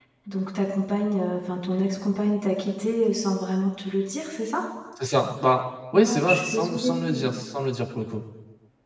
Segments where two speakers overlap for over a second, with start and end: 5.9-7.2

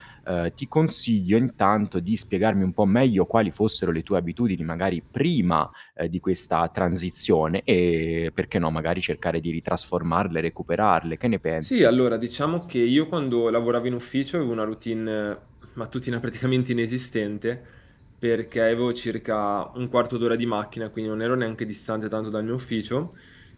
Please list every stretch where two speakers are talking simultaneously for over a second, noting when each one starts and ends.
none

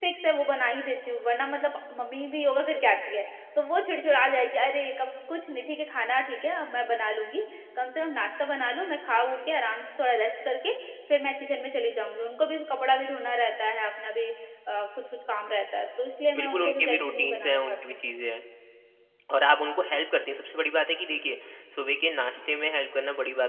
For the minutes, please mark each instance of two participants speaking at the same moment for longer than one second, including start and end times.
16.4-17.8

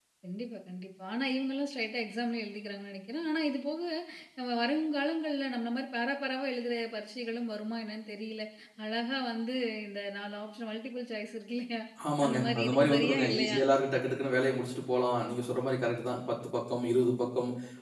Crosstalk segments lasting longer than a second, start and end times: 12.2-13.6

